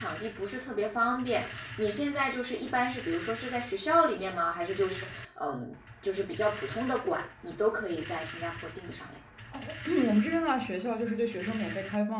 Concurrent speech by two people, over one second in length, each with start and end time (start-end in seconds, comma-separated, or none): none